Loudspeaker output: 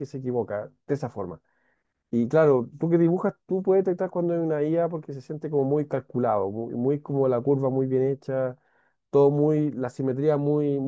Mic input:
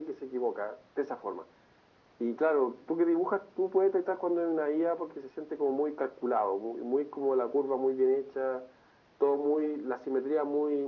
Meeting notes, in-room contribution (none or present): none